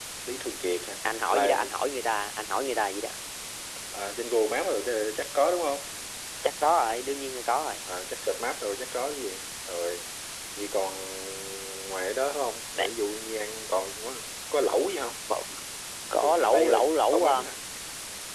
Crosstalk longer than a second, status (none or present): present